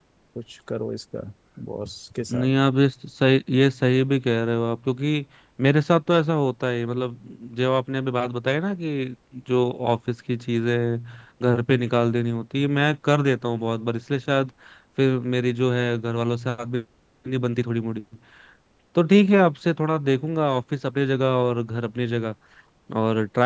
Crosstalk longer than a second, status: none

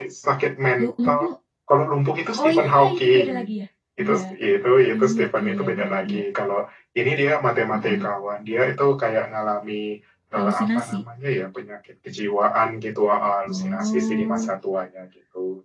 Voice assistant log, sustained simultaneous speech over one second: present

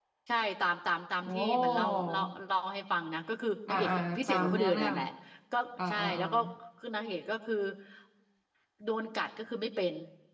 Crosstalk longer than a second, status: present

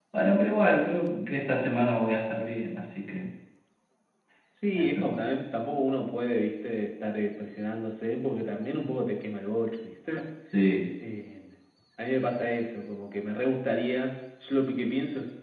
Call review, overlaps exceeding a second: none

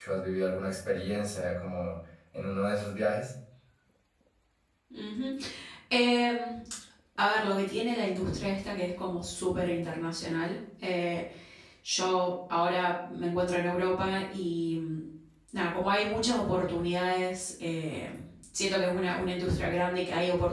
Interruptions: none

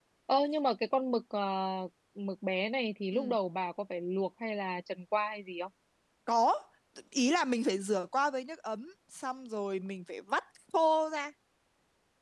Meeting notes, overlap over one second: none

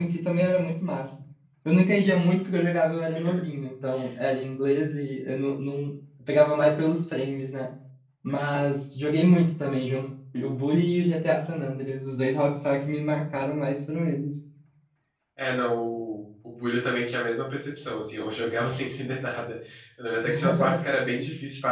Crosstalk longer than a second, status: none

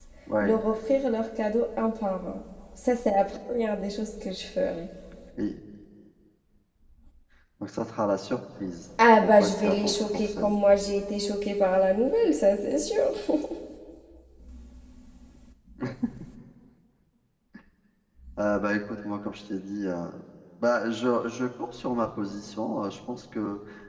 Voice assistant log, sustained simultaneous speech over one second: present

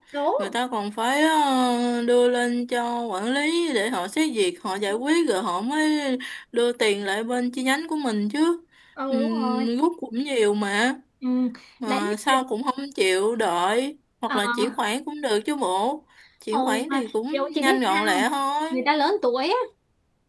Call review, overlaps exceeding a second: present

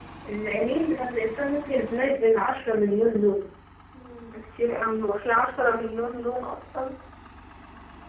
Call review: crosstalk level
none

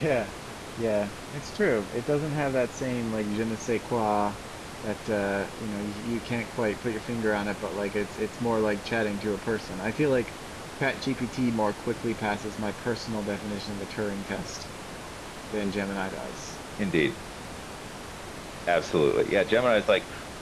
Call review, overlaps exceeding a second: none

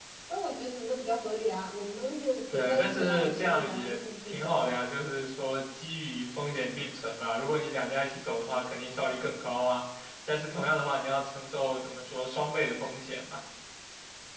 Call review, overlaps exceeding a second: present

